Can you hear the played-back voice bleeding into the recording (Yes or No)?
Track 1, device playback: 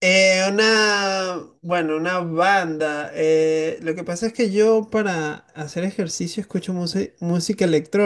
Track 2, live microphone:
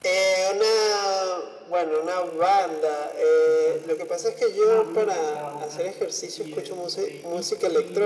Yes